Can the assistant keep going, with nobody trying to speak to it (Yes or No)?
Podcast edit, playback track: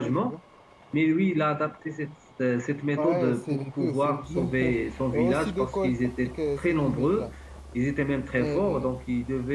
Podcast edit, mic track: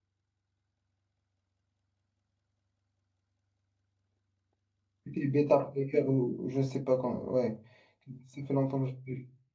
No